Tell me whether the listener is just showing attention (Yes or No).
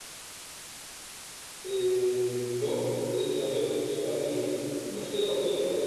No